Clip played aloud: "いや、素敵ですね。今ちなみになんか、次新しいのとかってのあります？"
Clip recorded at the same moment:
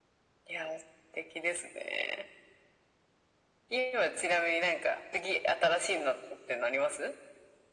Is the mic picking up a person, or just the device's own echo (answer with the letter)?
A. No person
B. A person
A